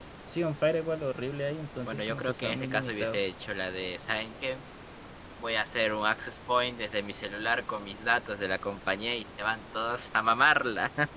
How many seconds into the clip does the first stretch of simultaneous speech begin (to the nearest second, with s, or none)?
2 s